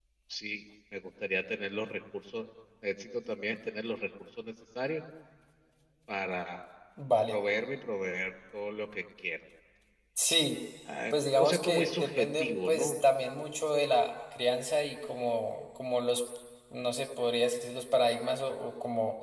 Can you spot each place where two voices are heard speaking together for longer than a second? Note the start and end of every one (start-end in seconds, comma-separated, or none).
11.1-12.9